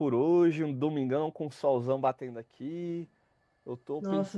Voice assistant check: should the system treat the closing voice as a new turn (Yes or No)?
No